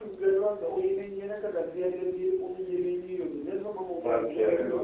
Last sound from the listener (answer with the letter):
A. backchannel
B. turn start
A